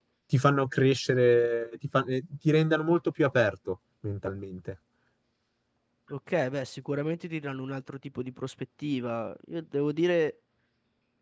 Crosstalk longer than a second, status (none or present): none